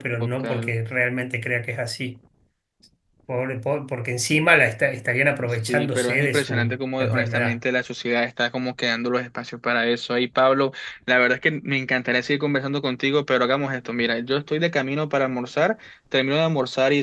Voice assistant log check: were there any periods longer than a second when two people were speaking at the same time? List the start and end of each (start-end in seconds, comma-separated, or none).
5.7-7.6